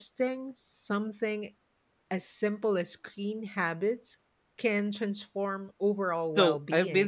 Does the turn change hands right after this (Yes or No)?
Yes